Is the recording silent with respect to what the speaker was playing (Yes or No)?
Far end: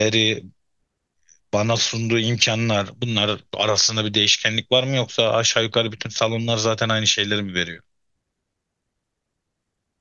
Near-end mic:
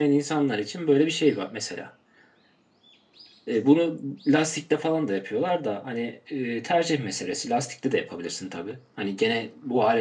Yes